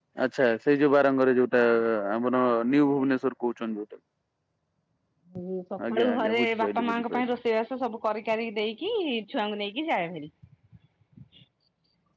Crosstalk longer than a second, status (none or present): present